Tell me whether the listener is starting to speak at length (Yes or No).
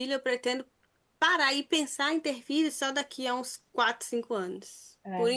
No